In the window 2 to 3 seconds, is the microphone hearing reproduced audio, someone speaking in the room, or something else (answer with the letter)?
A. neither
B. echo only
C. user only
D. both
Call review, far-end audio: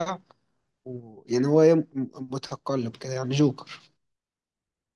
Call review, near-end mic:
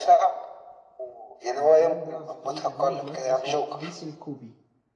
D